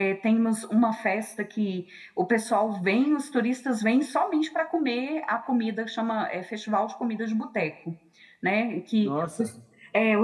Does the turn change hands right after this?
No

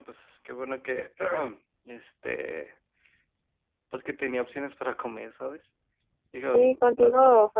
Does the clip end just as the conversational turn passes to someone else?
Yes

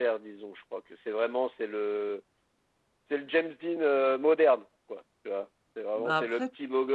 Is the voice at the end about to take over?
No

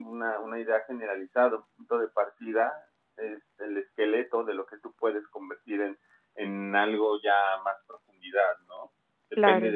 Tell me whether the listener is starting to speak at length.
No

